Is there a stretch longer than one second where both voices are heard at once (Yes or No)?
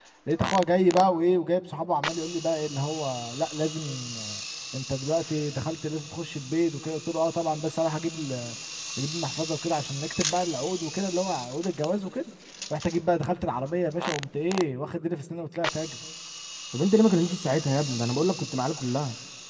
No